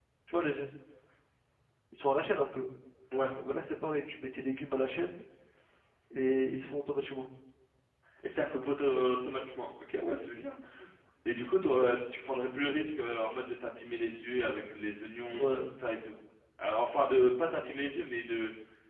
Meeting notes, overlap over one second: none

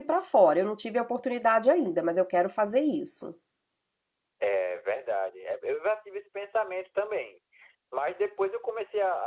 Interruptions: none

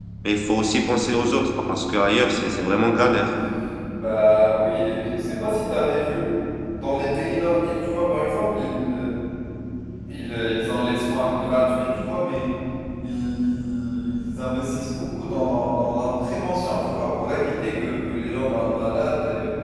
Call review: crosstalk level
none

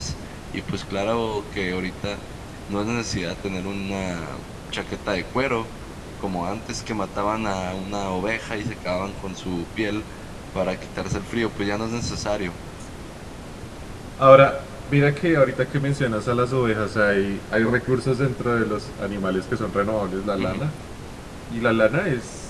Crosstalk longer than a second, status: none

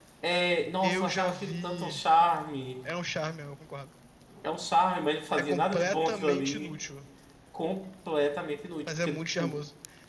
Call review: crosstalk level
present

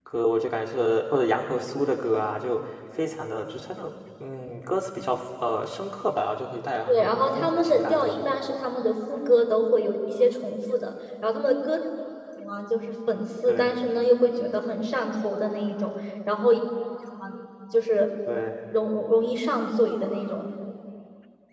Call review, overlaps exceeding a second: present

